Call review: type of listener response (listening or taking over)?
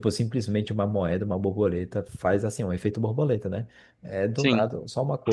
listening